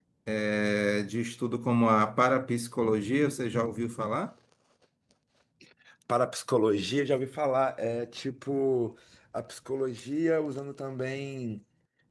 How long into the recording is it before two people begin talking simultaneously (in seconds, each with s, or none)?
none